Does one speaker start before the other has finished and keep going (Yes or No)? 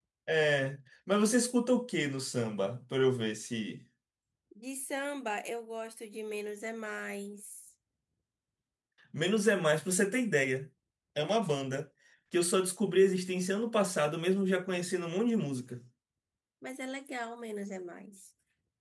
No